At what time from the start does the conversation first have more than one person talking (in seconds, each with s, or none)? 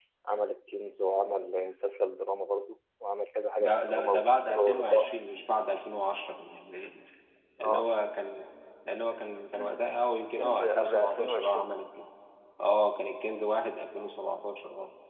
3.6 s